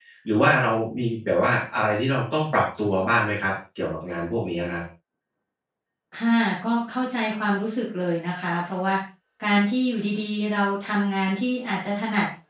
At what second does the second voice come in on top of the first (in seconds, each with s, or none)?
none